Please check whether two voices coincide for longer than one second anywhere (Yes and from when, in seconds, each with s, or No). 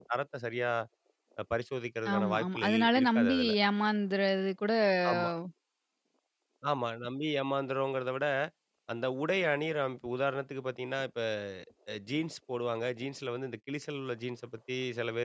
Yes, from 2.1 s